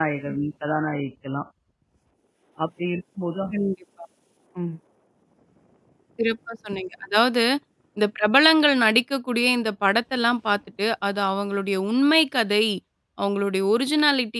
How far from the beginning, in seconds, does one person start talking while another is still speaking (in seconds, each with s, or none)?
none